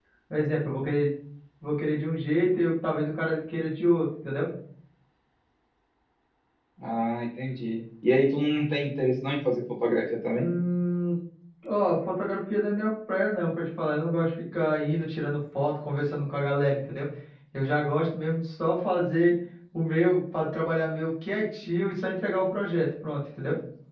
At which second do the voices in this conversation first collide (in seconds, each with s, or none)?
none